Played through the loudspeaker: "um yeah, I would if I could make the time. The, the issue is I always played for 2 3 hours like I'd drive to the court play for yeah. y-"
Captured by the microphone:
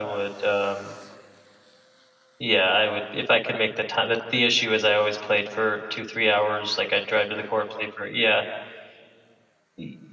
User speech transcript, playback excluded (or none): none